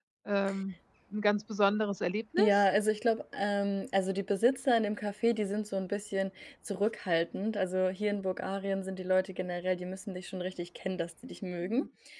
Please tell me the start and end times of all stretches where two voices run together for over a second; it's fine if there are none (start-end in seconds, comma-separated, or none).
none